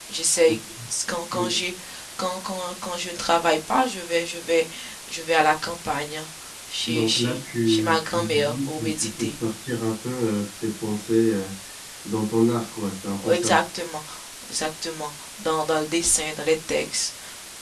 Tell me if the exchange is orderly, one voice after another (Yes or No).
No